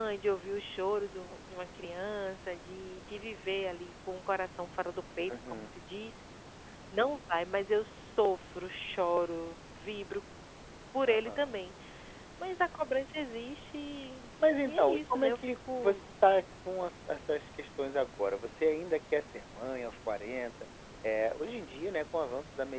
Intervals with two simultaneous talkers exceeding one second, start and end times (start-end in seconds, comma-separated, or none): 14.6-16.0